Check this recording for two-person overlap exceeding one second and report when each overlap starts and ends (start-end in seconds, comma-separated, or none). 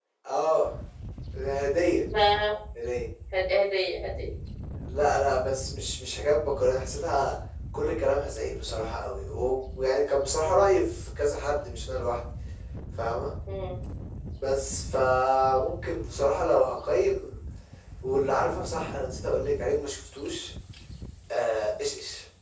none